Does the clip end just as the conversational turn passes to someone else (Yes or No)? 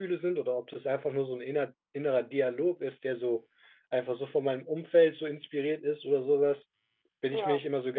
No